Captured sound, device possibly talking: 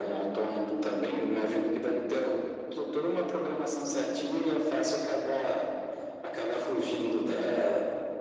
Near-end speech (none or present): none